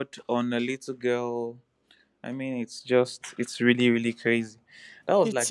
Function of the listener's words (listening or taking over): listening